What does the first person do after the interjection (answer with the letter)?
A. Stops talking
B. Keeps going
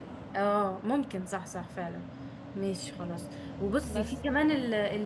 B